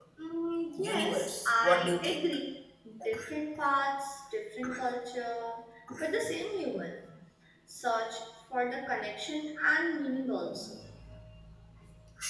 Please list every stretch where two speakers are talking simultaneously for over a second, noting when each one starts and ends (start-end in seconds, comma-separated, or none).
0.8-2.2